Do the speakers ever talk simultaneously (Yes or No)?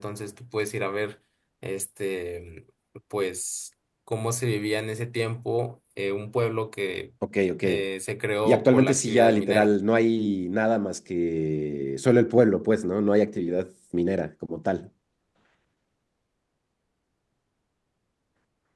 Yes